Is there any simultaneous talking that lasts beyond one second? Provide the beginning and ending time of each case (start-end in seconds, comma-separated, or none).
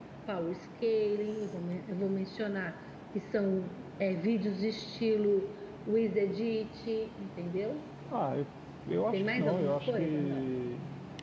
9.1-10.5